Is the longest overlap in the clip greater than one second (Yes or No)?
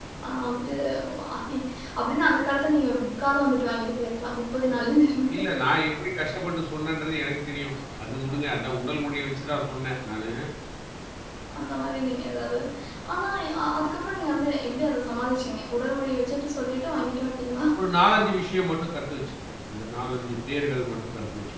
No